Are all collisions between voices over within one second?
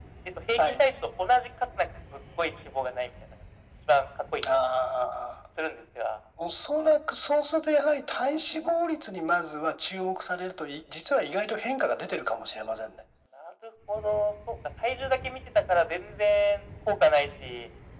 Yes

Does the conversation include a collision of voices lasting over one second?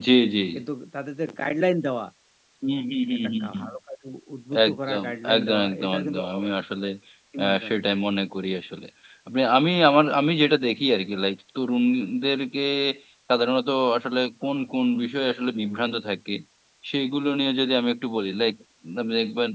Yes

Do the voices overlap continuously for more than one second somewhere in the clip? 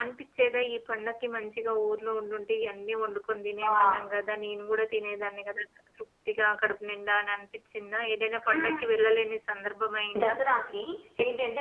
No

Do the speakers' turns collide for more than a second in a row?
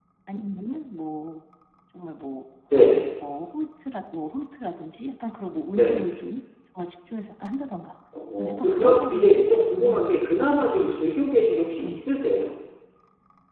Yes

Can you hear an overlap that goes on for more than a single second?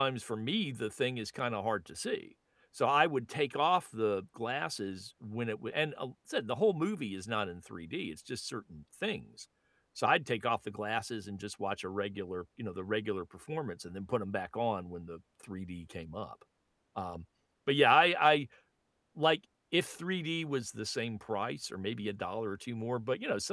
No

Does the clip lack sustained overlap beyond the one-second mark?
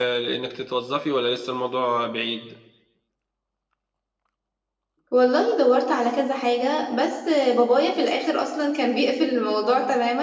Yes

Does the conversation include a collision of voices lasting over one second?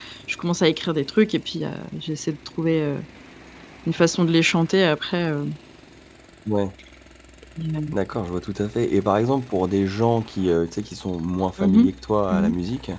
No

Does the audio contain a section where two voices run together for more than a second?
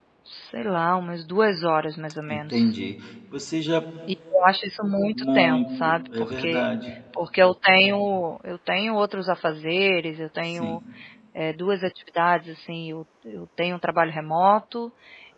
Yes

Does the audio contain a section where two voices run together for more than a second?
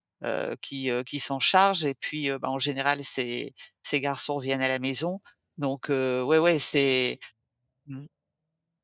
No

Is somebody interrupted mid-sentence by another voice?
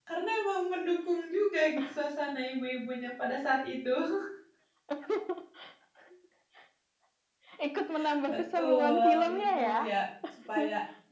Yes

